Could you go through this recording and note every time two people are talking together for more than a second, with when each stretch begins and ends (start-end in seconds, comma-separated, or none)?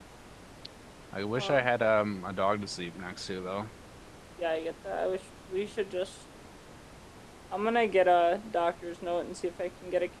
none